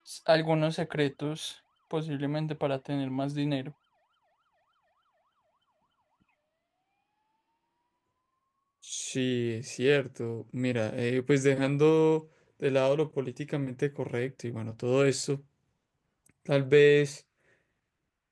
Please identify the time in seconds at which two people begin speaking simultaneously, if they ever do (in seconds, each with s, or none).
none